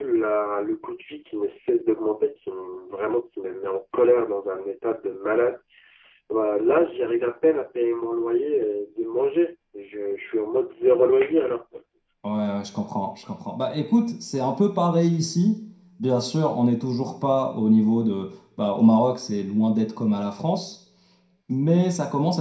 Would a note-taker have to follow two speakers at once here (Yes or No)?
No